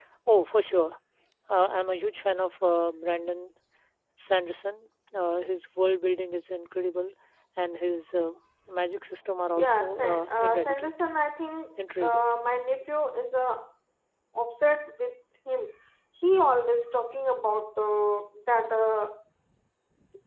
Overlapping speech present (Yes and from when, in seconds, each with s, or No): Yes, from 9.6 s